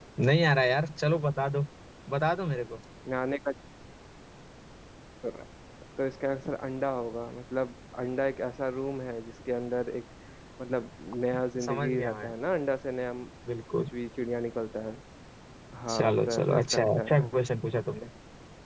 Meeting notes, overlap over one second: present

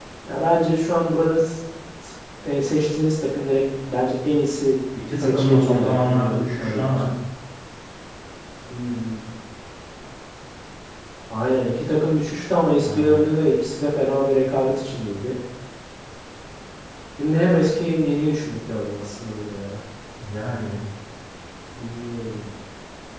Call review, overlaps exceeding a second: present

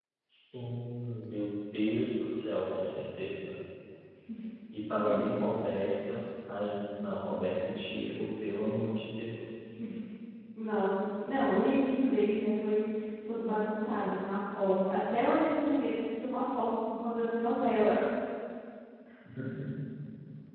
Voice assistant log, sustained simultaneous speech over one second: none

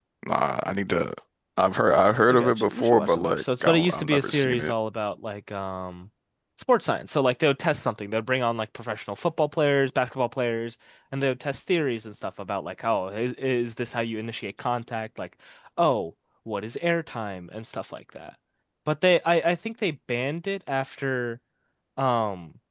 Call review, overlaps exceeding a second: present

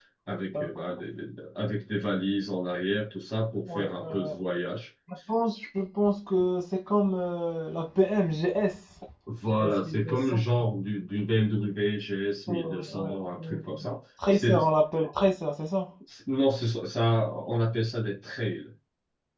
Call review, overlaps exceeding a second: present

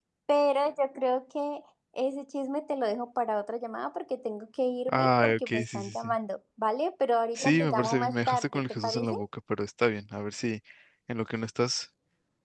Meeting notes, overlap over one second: present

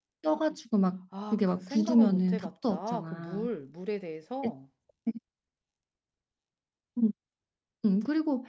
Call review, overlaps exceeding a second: present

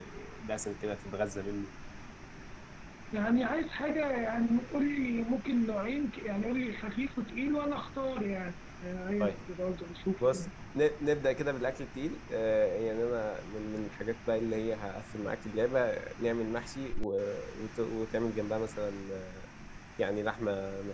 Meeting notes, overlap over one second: none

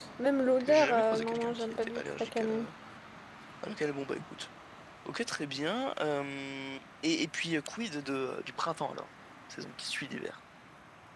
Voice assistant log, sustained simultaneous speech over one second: present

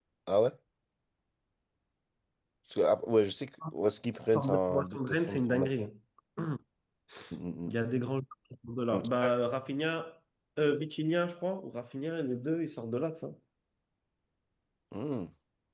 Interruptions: present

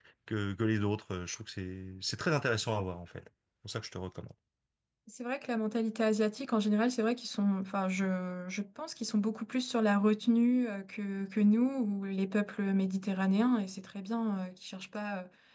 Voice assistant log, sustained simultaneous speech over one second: none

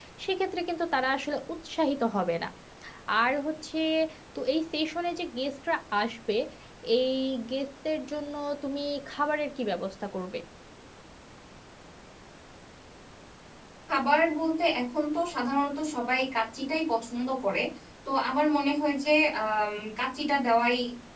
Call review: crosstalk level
none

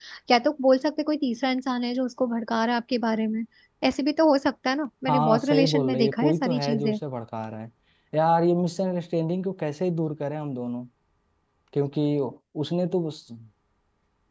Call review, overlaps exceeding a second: present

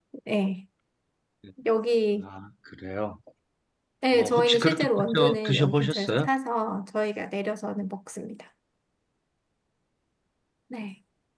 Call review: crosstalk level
present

